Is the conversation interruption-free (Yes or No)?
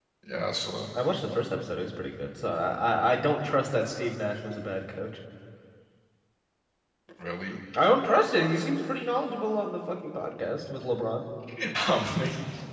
Yes